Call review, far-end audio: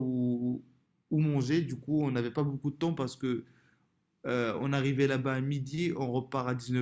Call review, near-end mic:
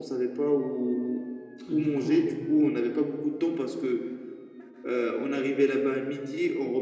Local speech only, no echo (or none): Du coup, bah, je